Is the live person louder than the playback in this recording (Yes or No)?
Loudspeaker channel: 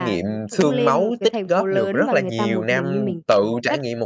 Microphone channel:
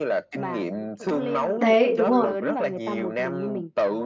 Yes